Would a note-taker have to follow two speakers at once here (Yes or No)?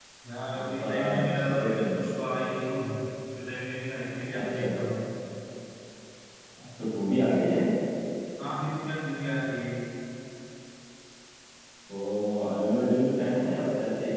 Yes